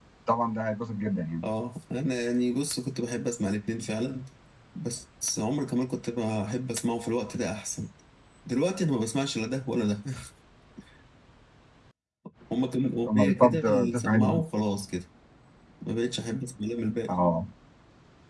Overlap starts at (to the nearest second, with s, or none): 13 s